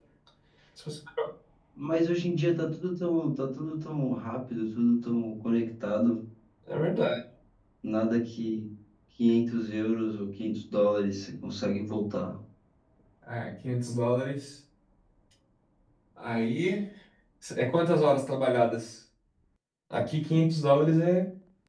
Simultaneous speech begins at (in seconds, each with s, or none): none